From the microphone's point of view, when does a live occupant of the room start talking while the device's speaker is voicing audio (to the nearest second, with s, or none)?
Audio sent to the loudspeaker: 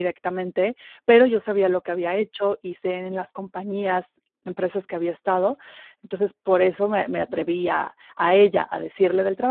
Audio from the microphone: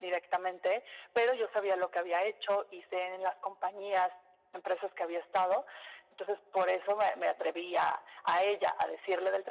none